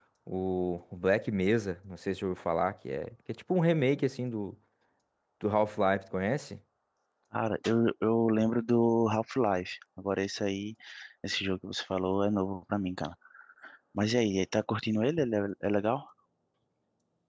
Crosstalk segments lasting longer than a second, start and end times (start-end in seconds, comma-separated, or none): none